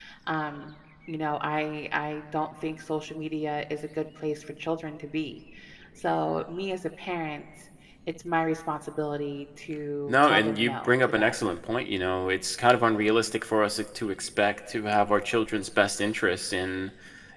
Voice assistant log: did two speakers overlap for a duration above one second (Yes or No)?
Yes